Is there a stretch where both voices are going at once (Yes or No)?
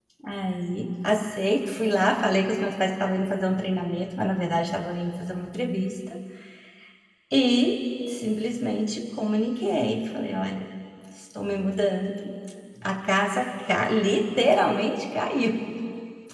No